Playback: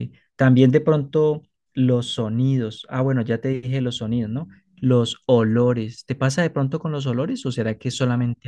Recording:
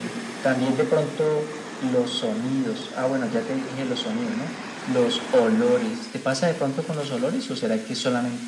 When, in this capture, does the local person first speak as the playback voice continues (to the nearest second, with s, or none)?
none